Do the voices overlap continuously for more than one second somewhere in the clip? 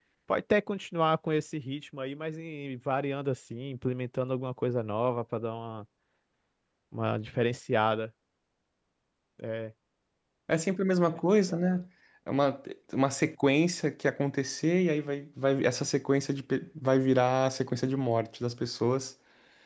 No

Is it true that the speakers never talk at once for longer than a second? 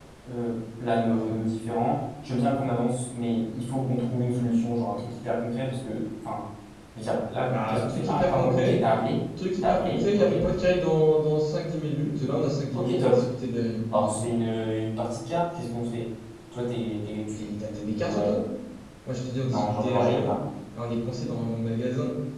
No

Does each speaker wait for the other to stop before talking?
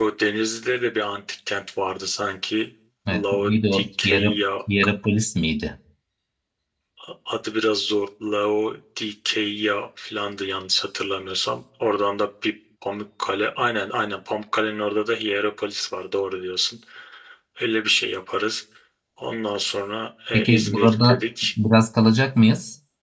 No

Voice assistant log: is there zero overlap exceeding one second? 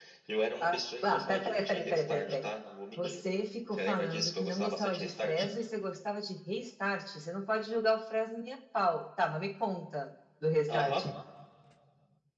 No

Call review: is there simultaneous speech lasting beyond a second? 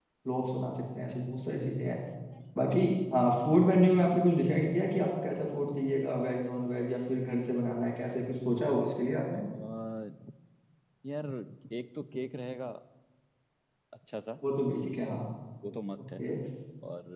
No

